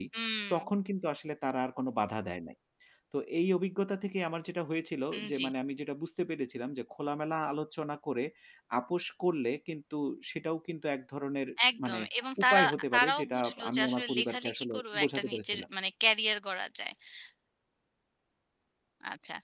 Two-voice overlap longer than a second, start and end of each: 12.4-15.6

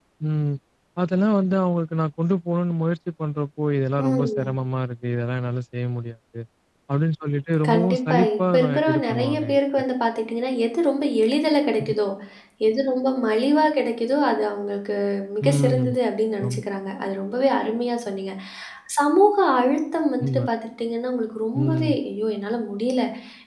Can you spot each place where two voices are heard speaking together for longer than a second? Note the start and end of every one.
7.7-9.6

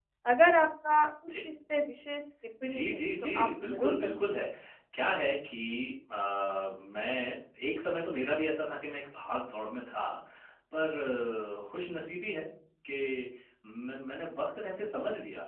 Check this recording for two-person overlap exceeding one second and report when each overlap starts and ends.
2.6-4.1

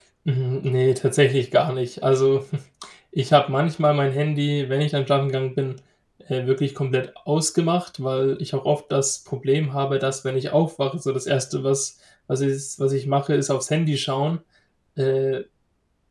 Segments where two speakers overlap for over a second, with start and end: none

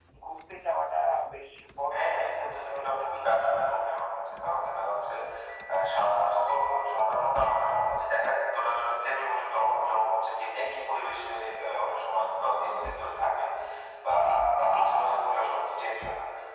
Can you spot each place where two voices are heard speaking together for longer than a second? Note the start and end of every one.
1.9-3.2

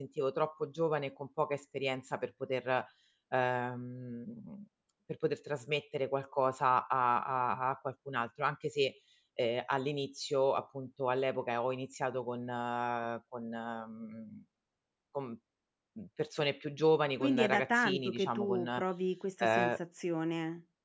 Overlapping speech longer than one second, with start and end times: 17.2-18.7

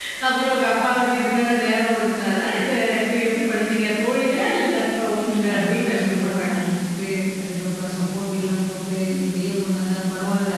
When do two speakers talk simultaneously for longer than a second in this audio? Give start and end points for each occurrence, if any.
5.2-6.5

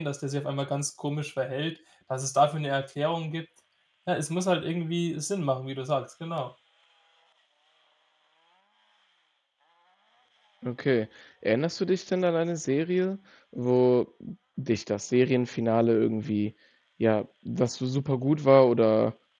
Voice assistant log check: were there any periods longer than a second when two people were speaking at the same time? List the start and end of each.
none

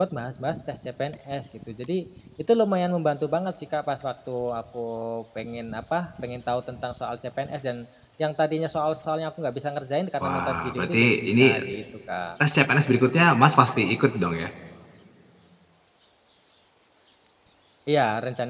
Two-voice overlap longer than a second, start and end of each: 10.2-11.6

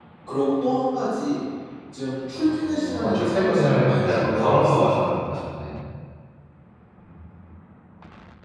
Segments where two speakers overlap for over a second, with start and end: 2.3-4.8

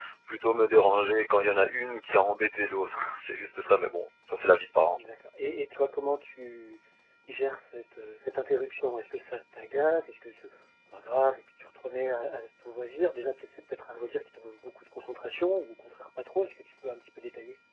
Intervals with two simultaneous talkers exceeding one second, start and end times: none

